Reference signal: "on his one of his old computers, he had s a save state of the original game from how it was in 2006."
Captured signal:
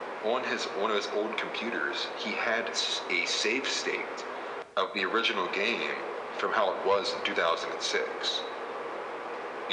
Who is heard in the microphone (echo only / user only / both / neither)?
echo only